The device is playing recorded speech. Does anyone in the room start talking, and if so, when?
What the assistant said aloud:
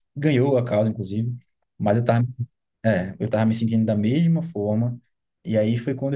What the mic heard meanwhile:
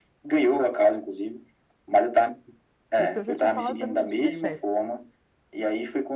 3.0 s

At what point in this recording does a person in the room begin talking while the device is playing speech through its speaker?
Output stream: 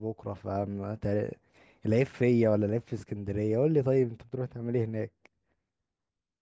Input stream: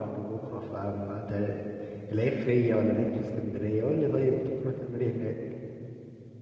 none

